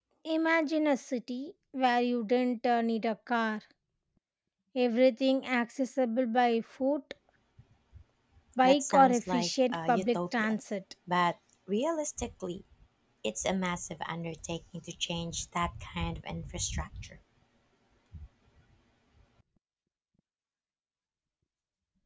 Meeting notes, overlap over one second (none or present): present